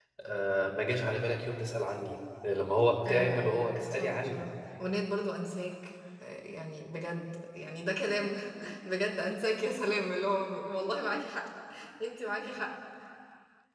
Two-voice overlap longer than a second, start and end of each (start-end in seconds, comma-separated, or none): 3.0-4.4